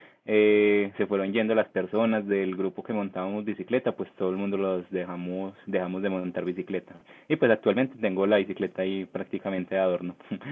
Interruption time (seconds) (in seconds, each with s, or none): none